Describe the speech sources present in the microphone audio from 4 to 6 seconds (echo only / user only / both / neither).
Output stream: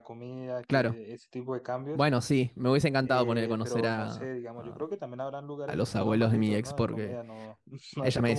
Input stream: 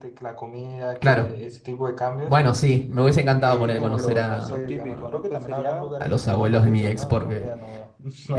both